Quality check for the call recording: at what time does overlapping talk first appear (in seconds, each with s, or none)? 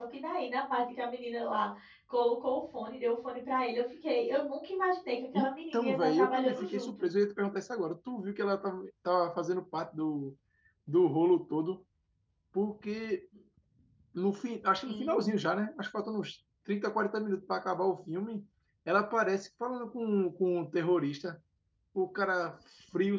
5.3 s